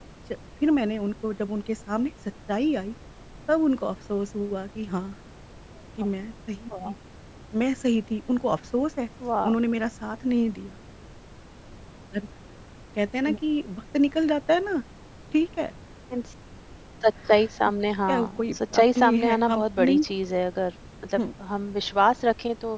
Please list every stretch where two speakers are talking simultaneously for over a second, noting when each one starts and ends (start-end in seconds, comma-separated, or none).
18.1-20.0